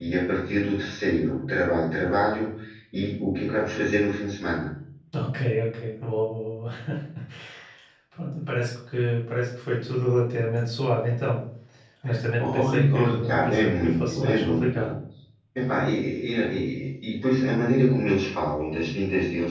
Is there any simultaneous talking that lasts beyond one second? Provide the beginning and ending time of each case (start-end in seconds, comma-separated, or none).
12.4-14.9